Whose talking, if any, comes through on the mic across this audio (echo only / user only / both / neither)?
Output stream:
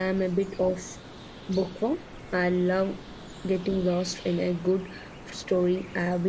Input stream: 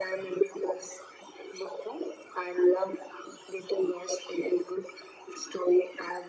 echo only